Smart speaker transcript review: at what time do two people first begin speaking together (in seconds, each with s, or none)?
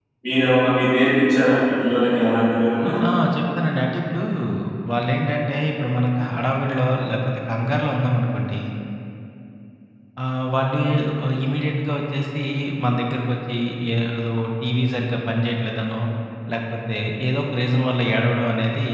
none